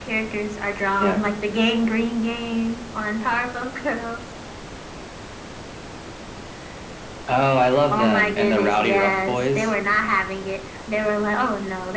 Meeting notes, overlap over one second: present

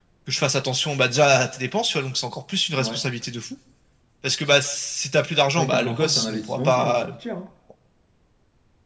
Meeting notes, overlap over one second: present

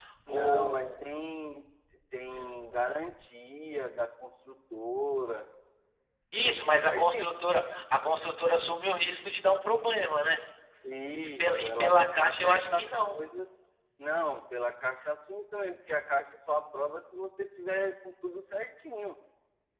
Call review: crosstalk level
present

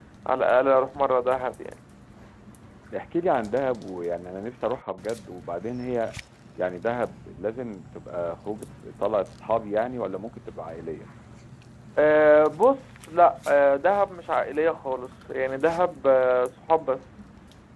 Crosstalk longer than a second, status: none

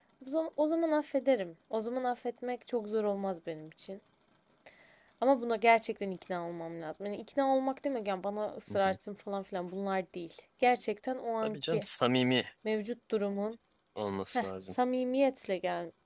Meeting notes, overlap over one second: none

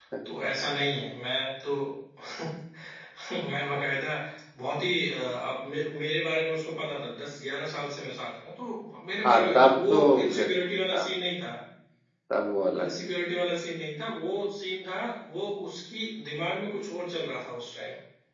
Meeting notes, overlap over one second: present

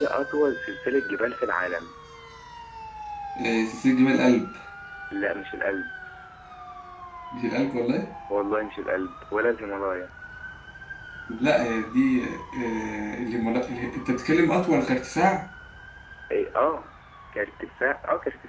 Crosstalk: none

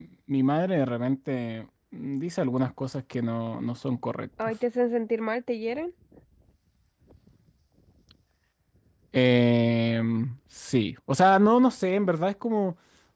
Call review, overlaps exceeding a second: none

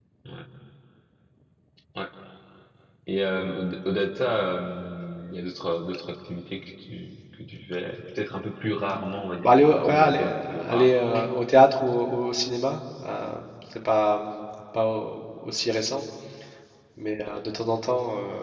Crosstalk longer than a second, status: present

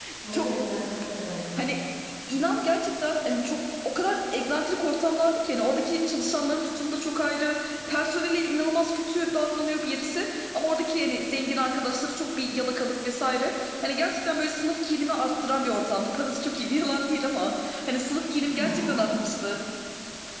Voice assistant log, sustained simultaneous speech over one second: none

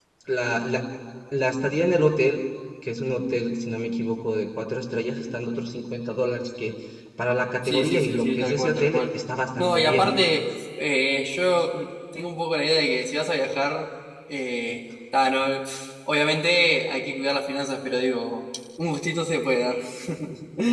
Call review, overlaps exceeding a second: present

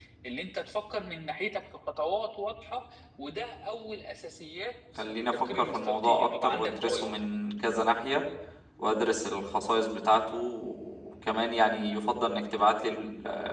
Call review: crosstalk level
present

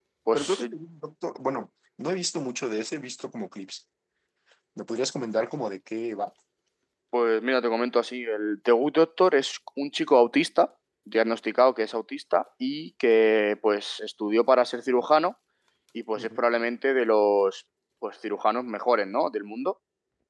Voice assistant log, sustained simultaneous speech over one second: none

